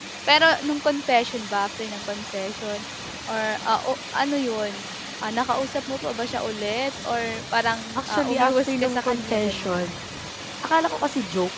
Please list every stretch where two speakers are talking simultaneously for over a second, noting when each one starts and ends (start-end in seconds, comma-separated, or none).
8.0-9.9